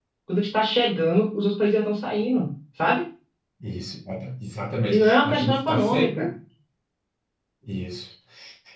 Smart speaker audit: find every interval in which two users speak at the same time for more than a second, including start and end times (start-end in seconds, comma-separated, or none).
4.9-6.3